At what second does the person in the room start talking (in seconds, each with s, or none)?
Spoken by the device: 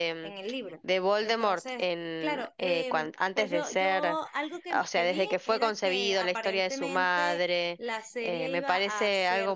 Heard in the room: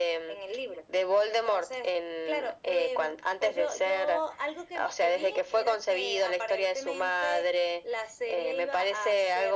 none